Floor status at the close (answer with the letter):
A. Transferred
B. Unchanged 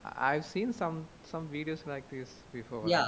A